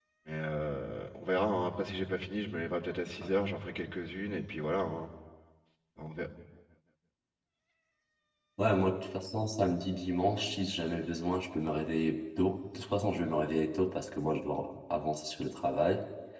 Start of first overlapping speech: none

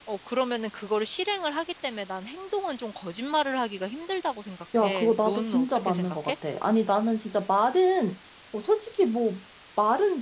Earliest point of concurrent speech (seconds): 5 s

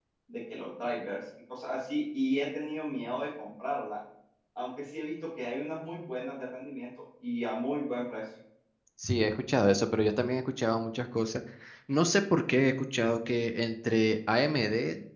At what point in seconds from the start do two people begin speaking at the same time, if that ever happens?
none

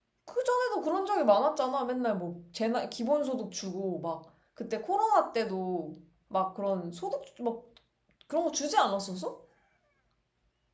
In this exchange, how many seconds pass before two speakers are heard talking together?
none

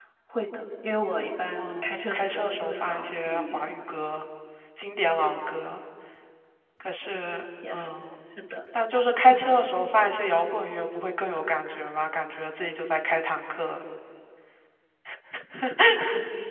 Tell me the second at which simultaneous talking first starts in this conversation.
2 s

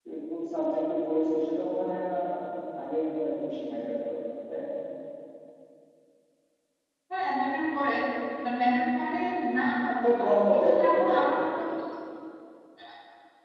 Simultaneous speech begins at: 10 s

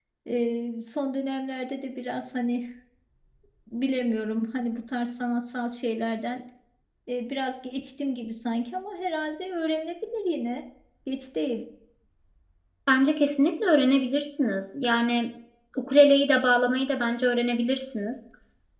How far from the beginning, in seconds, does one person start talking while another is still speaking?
none

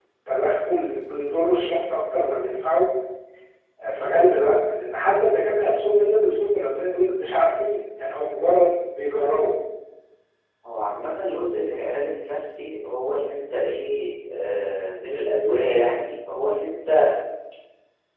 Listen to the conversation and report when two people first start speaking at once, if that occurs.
none

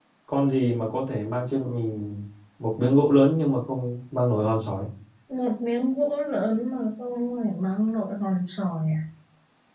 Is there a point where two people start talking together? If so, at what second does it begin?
none

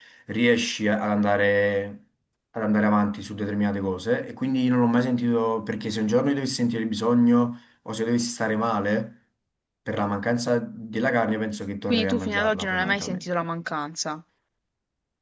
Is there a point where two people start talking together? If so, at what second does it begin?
12 s

